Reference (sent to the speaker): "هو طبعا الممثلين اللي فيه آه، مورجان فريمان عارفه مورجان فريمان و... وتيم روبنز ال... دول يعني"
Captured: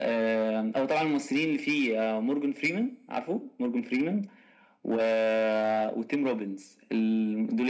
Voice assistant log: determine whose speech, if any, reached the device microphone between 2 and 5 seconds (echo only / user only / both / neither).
echo only